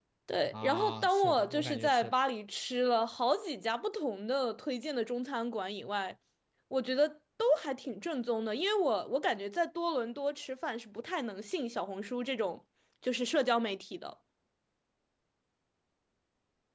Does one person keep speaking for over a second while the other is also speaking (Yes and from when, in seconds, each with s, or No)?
Yes, from 0.5 s